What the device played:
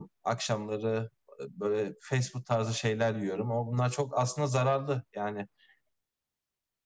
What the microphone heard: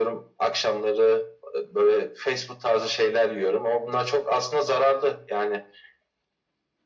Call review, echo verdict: present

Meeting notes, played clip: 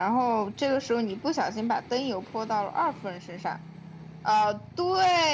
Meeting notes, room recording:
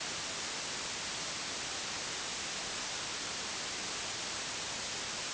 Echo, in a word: none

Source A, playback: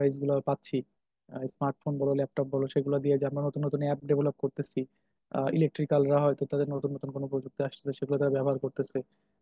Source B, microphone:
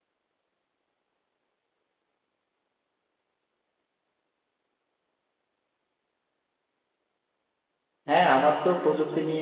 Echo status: none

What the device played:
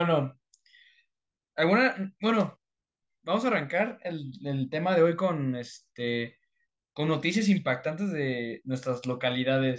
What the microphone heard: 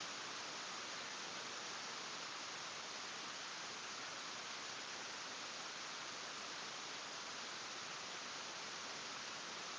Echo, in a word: none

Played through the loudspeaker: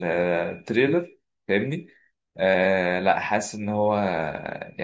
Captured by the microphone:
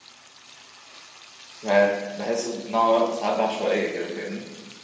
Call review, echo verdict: none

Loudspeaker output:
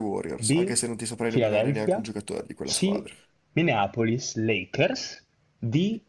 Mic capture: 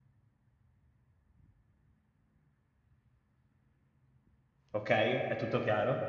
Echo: none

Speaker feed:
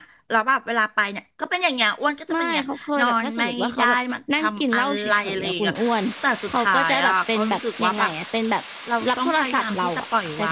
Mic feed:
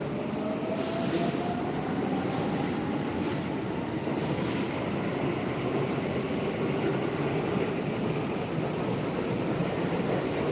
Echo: none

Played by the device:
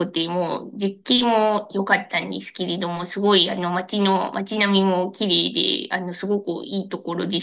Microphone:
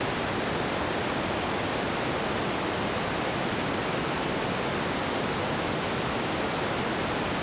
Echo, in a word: none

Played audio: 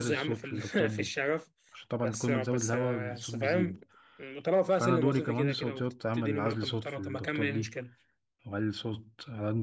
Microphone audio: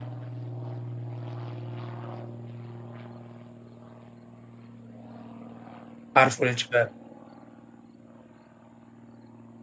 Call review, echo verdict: none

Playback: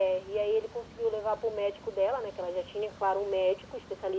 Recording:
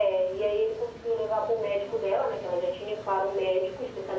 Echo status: present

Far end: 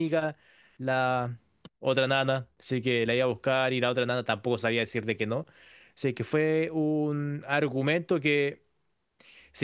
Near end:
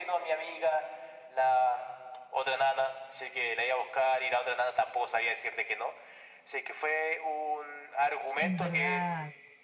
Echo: present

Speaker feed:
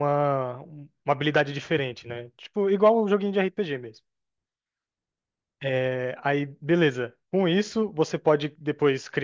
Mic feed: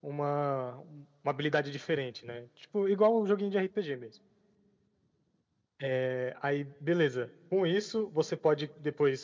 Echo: present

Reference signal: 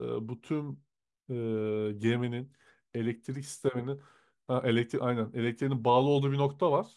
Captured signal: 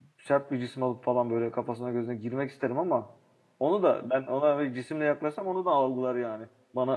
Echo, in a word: none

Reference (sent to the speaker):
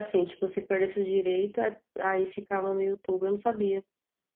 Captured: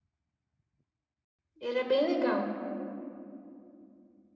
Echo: none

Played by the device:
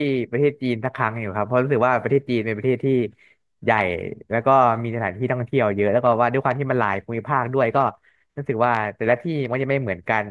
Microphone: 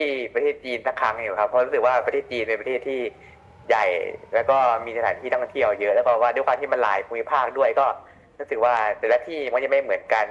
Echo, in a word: present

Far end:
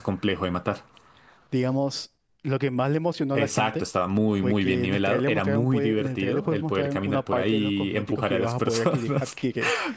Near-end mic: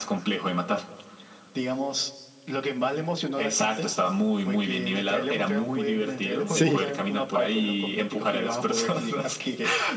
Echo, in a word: present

